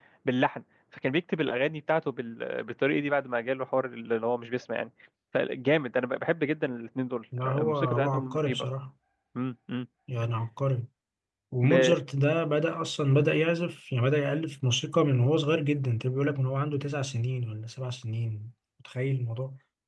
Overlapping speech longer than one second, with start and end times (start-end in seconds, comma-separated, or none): 7.4-8.7